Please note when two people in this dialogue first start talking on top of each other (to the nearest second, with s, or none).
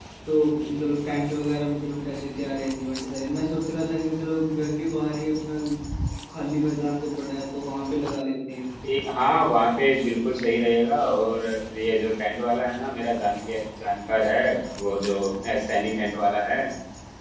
none